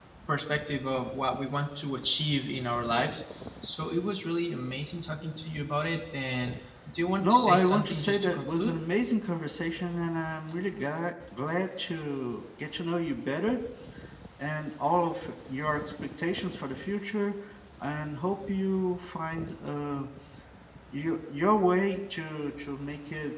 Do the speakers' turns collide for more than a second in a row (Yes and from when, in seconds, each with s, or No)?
Yes, from 7.2 s